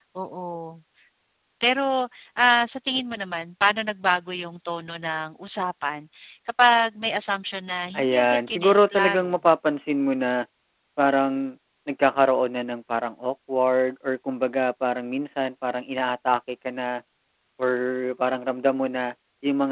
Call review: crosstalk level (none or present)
present